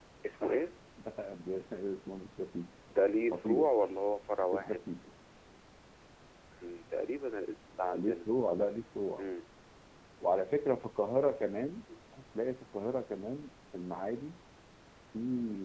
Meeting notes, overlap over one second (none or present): none